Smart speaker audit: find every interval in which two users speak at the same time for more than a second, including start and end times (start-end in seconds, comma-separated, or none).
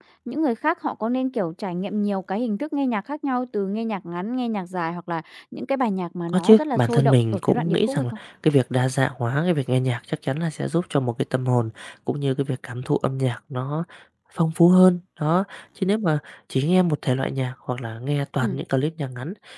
6.3-8.0